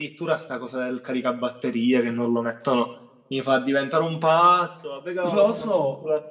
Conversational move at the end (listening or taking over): listening